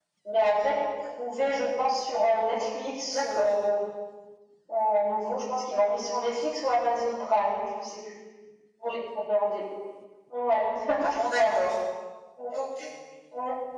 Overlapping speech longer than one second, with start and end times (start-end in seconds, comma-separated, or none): none